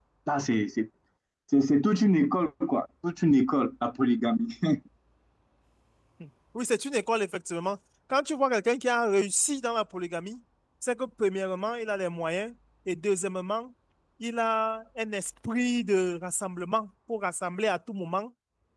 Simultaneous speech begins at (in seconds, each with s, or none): none